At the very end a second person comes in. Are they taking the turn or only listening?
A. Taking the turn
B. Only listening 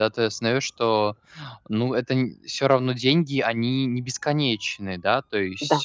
A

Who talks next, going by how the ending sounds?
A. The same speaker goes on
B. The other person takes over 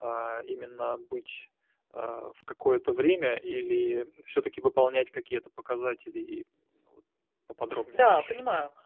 B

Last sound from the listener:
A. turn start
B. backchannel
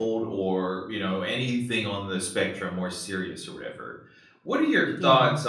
B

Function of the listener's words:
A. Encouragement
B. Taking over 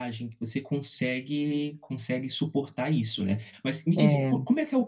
A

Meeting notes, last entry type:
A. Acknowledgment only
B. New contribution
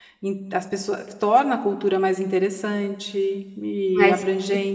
A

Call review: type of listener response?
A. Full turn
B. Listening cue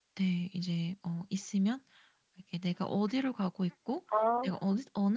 B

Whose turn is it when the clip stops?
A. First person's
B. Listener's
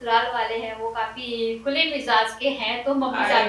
A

